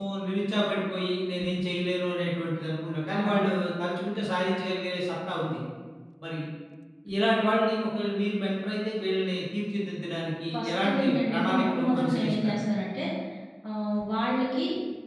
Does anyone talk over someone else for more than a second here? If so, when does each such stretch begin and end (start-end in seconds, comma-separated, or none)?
10.5-12.6